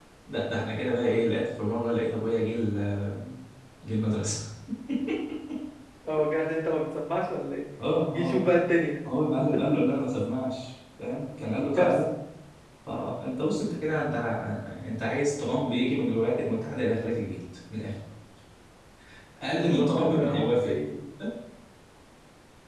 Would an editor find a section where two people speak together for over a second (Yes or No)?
Yes